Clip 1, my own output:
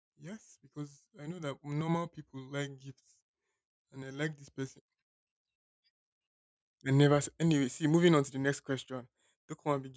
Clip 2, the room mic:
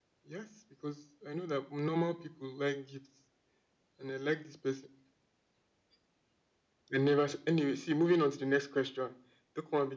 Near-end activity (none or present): none